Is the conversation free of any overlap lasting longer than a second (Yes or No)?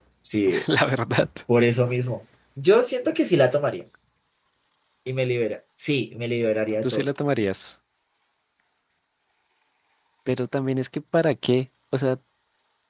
Yes